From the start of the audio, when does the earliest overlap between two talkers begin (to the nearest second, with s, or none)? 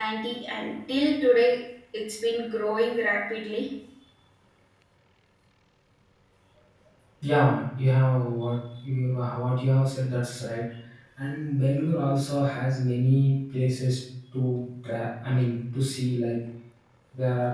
none